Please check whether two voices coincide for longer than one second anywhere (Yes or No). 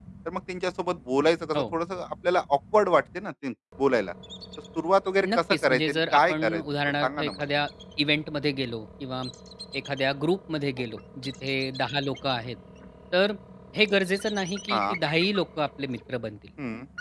Yes